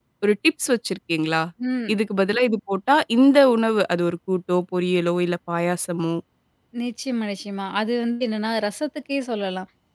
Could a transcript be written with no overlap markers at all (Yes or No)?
Yes